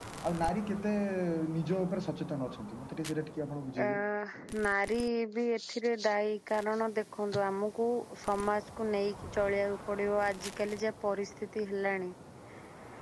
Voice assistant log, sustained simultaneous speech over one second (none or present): none